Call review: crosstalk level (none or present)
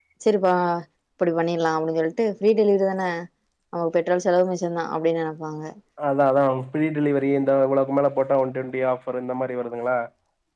none